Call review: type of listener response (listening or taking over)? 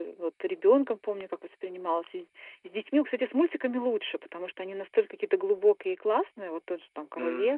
listening